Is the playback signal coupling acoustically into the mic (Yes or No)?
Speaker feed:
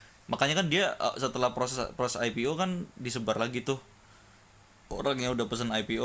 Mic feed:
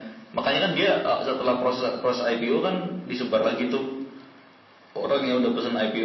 Yes